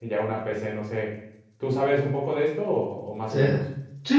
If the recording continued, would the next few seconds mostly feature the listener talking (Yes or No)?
Yes